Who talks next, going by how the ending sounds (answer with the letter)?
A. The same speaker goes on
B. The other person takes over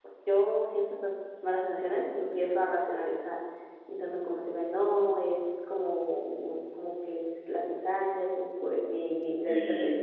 A